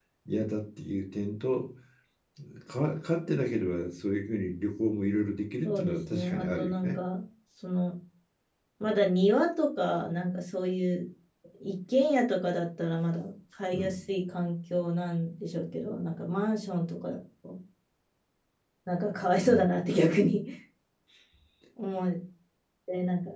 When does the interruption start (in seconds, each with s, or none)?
5.6 s